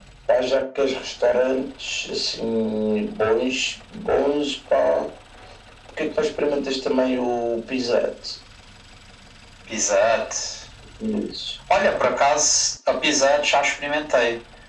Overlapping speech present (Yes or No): No